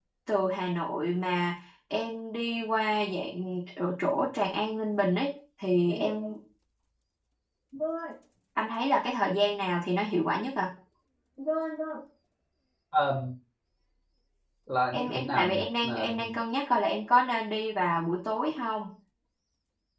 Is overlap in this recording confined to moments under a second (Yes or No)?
No